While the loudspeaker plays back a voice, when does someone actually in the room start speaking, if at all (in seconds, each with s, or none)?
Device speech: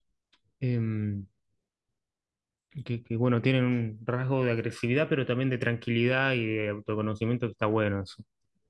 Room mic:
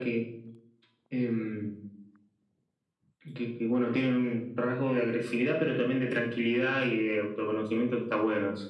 none